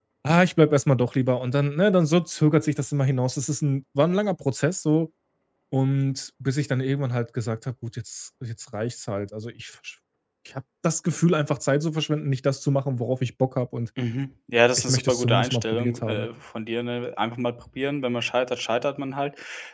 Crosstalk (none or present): present